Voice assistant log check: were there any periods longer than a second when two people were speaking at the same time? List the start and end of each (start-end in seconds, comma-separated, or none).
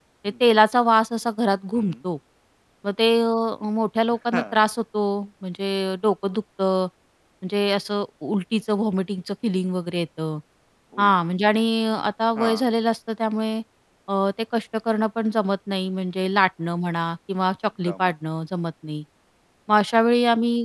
none